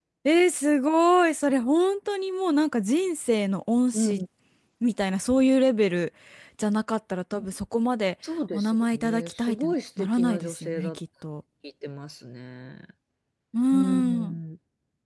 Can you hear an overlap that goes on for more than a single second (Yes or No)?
Yes